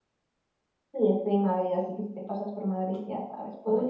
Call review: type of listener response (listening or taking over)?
taking over